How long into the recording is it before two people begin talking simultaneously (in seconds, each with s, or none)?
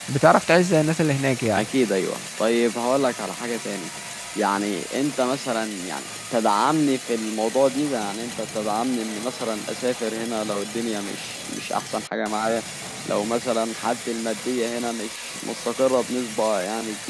none